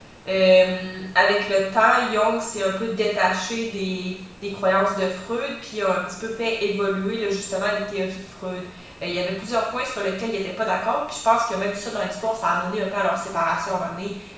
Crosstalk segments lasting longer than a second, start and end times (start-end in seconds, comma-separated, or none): none